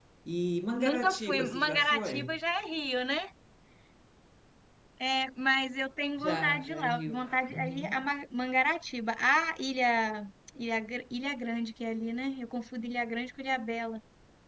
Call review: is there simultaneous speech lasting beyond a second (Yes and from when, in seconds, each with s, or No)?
Yes, from 0.8 s